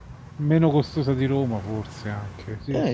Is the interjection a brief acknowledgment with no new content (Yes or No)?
No